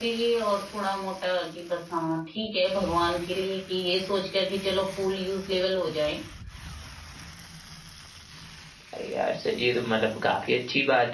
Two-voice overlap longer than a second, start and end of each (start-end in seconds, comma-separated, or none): none